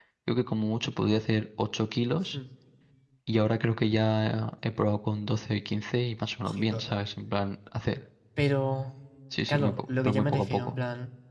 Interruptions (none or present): present